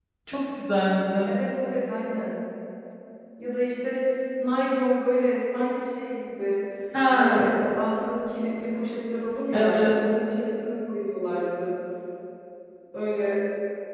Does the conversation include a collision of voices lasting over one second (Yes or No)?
No